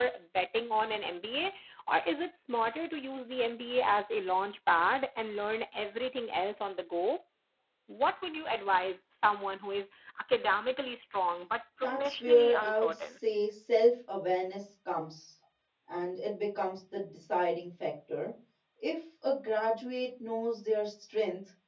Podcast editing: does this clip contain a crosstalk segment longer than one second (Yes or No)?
Yes